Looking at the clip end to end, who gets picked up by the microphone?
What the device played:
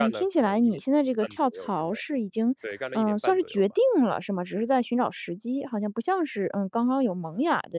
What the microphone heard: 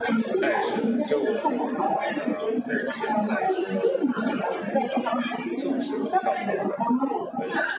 both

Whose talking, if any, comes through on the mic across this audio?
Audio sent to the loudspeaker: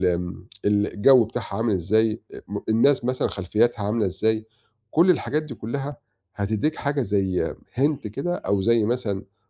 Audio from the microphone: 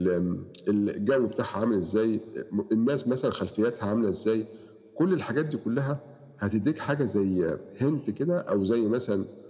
echo only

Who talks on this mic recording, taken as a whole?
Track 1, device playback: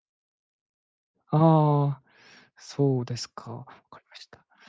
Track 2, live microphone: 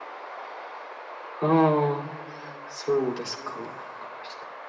echo only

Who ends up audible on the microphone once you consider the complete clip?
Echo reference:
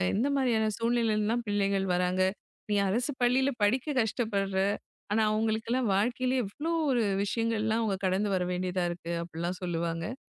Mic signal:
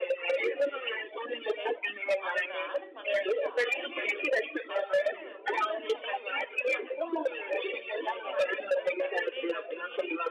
both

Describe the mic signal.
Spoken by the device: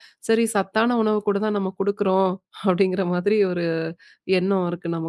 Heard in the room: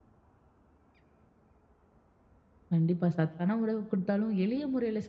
user only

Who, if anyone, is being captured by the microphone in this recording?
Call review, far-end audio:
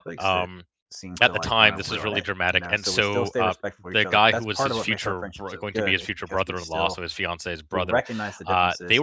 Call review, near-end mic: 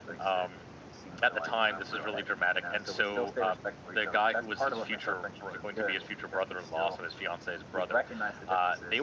echo only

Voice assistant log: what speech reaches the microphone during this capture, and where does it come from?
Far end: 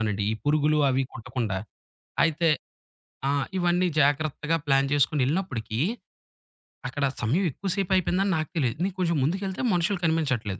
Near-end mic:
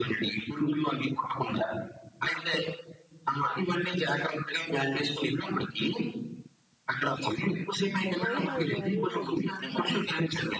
both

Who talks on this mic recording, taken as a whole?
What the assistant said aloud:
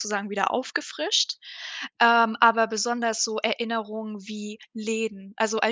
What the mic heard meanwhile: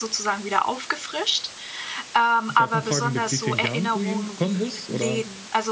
both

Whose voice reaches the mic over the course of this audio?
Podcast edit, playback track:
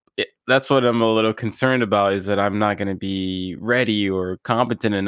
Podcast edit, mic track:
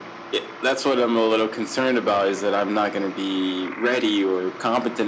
echo only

